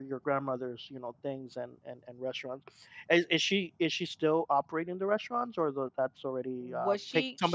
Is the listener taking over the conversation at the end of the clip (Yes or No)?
Yes